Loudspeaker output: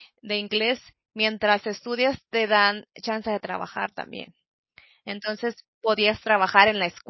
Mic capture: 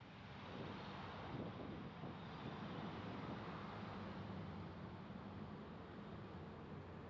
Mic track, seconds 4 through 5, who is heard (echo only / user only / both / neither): neither